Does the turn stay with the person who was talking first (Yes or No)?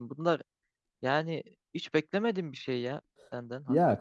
No